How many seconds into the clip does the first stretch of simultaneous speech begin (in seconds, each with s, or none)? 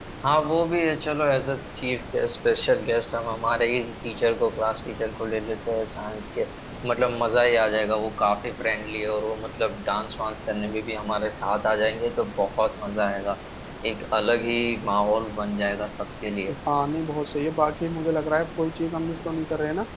none